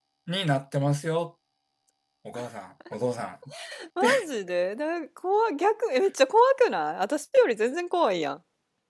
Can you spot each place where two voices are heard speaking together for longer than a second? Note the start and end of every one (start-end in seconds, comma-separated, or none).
none